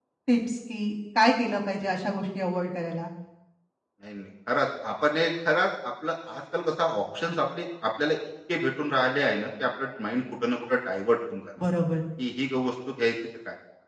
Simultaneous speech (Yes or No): No